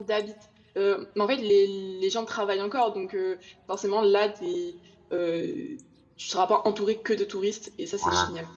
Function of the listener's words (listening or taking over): taking over